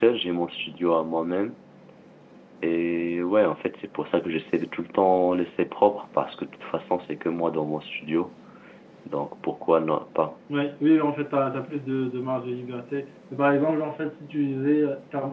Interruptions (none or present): none